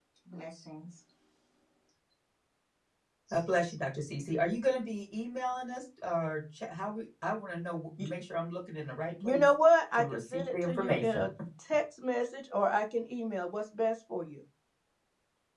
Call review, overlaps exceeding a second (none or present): present